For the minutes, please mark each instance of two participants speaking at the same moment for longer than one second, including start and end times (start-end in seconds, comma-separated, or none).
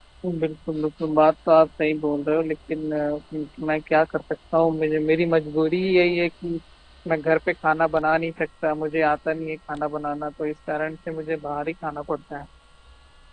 none